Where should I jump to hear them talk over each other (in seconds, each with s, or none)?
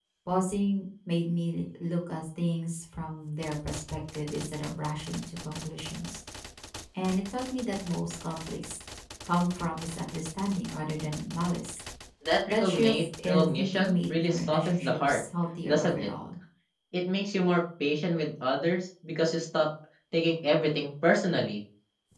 12.5 s